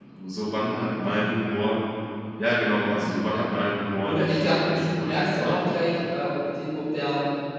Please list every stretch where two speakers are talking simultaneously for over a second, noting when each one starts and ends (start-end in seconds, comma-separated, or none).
4.0-5.6